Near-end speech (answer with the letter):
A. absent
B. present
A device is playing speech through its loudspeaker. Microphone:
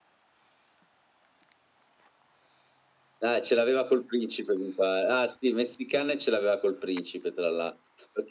A